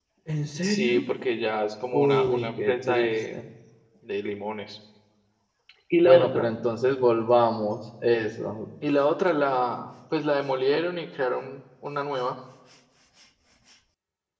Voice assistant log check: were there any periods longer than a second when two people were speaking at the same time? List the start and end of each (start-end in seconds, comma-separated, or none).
1.9-3.4